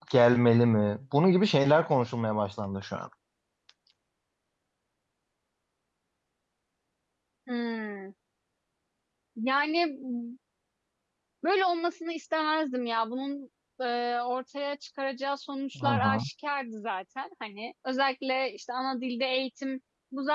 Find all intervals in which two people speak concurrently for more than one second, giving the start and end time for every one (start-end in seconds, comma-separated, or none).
none